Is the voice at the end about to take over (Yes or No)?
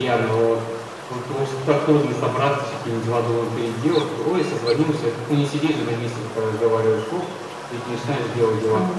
Yes